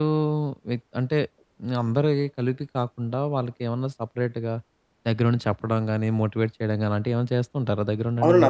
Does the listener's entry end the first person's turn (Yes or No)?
Yes